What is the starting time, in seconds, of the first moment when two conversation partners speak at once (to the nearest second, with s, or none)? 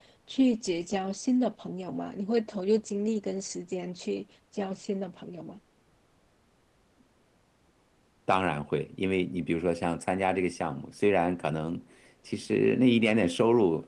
none